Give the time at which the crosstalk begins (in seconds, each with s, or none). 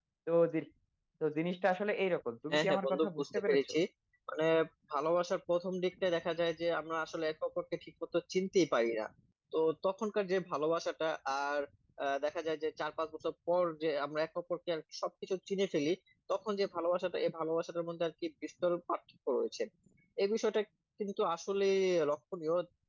2.5 s